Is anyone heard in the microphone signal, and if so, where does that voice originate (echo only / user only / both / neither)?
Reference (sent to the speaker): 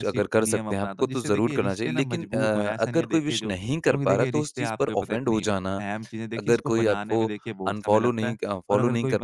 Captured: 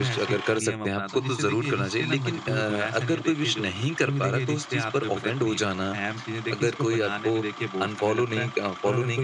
echo only